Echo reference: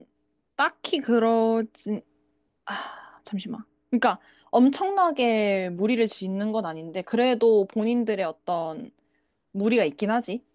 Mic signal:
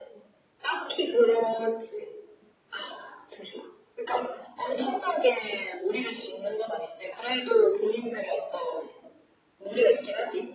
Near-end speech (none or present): none